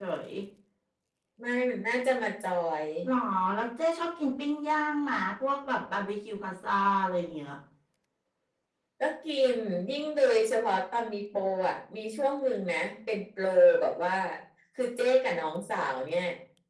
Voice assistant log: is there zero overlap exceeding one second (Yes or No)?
Yes